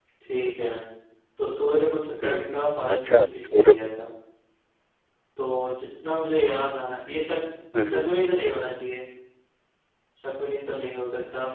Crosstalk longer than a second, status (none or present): present